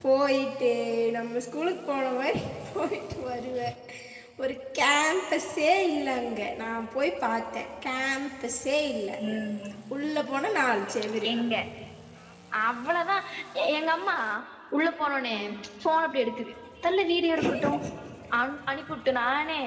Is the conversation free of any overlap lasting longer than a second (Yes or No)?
Yes